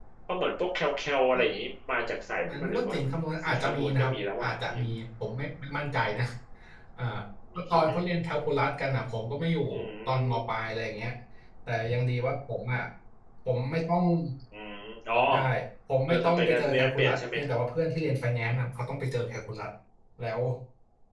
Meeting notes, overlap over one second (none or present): present